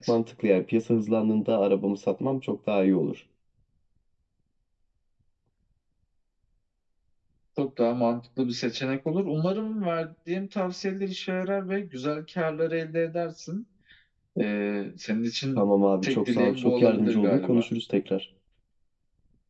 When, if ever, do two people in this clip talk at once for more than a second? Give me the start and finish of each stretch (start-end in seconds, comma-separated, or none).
16.0-17.6